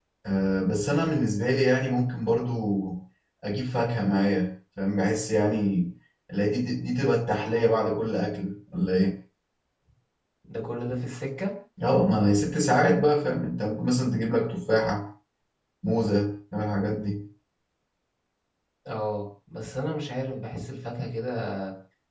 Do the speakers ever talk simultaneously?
No

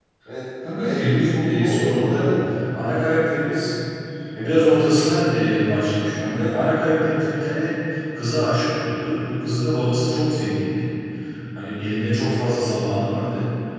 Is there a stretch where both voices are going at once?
Yes, from 0.8 s

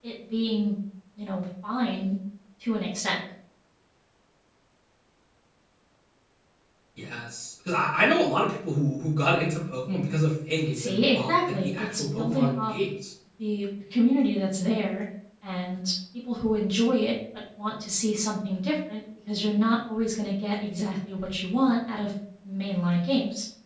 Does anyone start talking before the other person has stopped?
Yes, from 10.7 s

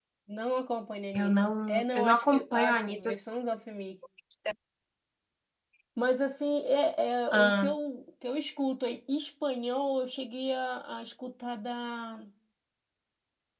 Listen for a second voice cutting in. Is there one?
Yes, from 1.1 s

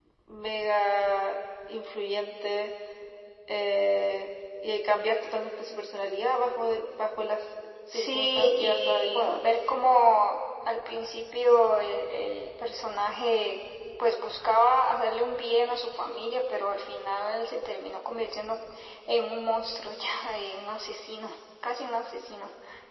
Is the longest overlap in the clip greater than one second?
Yes, from 7.9 s

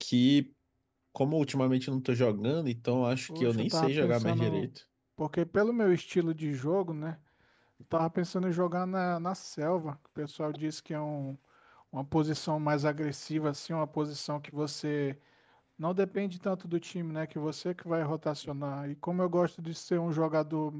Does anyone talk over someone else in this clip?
Yes, from 3.3 s

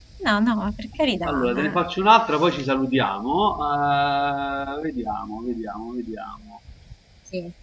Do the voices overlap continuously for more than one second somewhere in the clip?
No

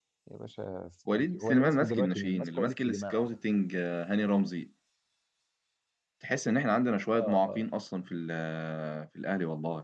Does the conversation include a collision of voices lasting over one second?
Yes, from 1.1 s

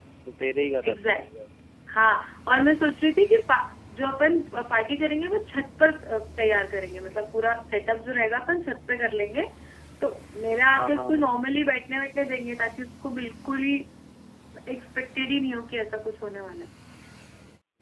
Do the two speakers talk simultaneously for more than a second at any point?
No

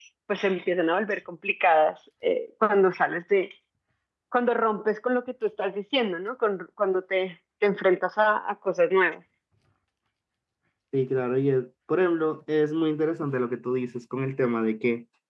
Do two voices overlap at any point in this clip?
No

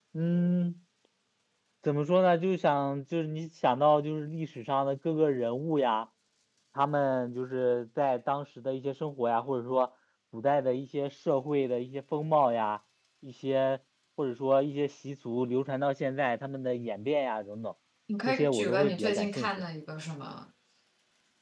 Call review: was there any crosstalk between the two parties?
Yes, from 18.3 s

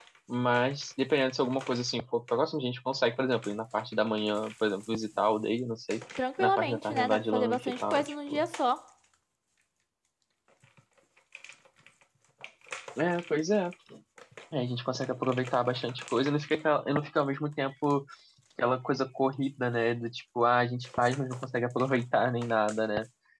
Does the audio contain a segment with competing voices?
Yes, from 6.2 s

